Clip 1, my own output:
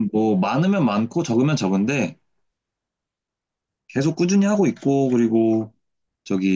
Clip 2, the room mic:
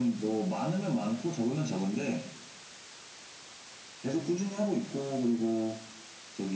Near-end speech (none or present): none